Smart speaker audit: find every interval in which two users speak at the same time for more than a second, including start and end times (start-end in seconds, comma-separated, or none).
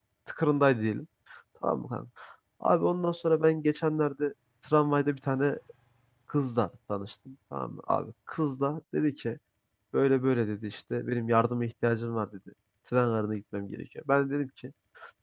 none